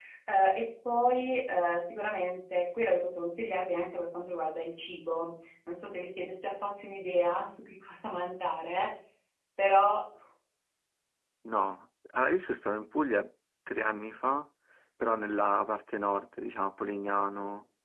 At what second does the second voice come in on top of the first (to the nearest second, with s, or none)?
none